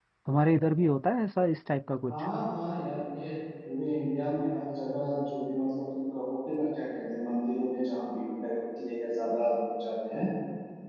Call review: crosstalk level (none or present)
none